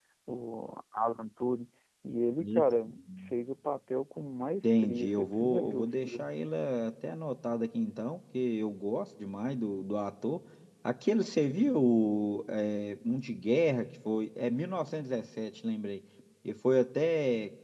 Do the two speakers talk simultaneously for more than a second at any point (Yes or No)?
Yes